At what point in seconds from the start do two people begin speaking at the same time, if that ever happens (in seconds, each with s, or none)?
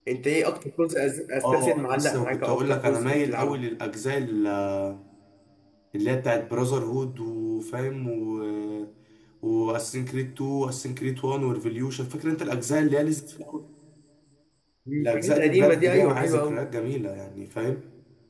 1.4 s